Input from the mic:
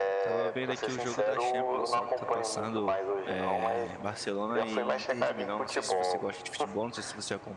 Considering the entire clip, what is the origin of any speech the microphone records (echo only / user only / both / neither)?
both